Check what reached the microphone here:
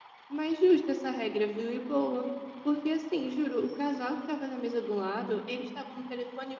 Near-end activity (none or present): present